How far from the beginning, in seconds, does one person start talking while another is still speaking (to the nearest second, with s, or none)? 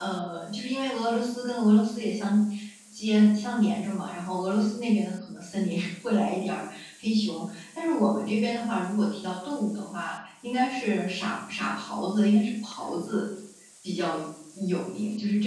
none